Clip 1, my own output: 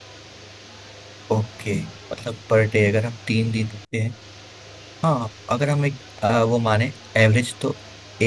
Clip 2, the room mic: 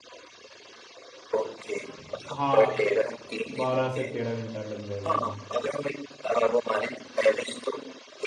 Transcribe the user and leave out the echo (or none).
हाँ बारह से तेरह घंटा लग जाएगा हमें